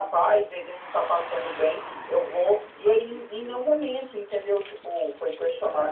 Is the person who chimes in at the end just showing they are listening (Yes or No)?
Yes